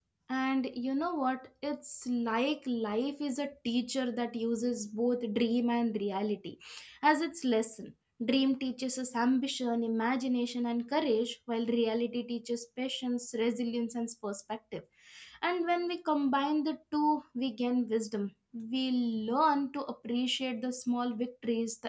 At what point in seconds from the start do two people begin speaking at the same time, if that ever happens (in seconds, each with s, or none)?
none